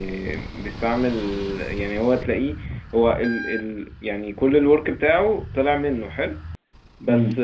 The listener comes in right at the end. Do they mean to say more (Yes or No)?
No